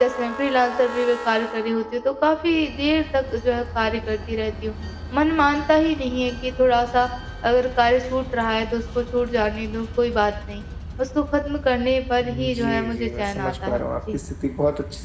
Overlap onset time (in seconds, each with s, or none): 12.2 s